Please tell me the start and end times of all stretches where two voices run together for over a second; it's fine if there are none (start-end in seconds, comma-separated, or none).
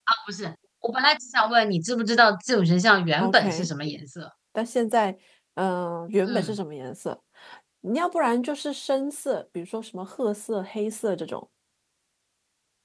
none